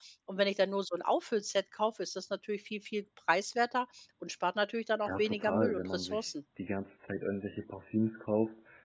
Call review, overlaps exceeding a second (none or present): present